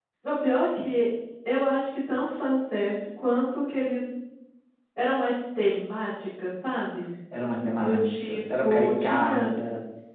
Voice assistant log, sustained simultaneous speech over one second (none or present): present